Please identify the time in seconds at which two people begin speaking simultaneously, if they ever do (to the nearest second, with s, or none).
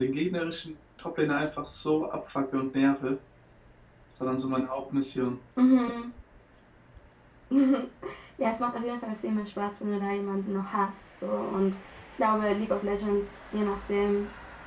none